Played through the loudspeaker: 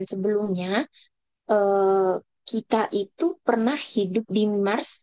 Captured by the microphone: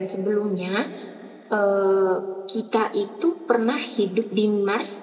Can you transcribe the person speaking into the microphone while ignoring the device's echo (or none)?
none